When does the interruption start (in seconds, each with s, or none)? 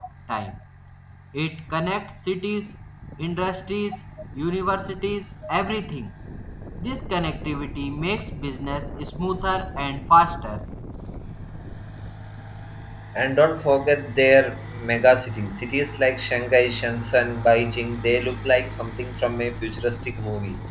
none